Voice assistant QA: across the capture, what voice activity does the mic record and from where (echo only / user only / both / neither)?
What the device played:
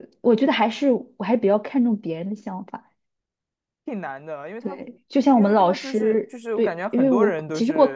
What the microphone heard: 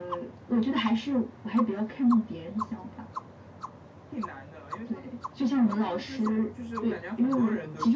echo only